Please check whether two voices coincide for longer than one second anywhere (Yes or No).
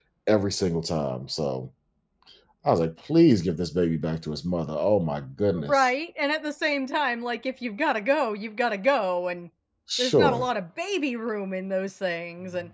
No